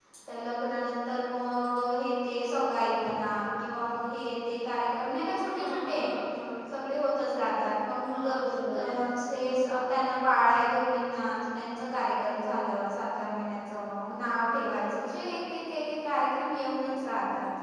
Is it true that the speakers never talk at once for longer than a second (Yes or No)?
Yes